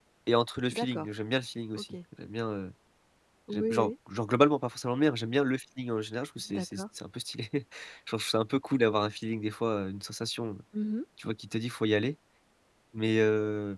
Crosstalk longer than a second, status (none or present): none